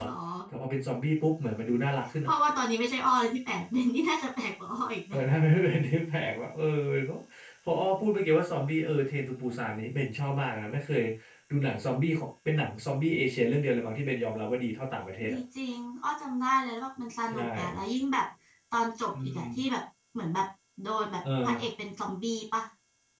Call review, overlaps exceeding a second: none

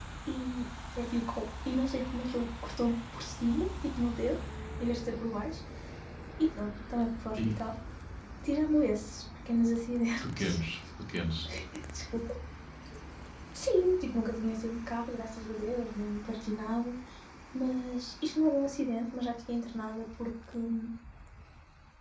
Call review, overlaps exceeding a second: none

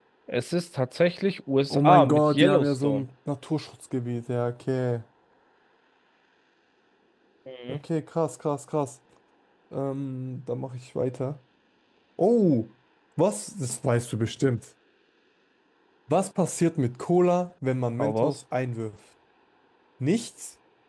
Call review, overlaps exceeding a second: present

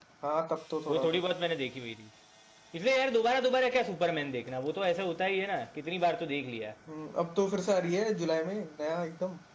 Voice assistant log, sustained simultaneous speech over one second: none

